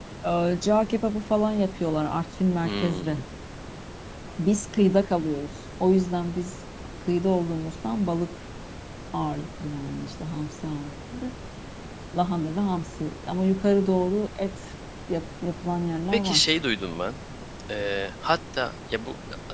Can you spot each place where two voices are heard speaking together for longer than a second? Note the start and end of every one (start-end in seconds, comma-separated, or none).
none